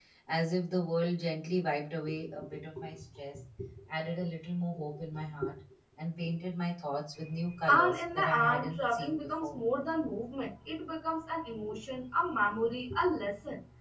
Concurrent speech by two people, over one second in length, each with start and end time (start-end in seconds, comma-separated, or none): 7.7-9.6